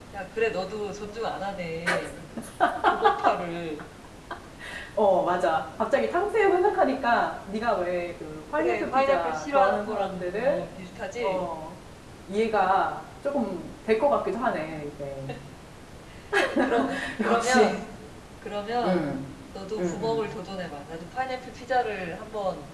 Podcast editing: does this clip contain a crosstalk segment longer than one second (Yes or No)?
Yes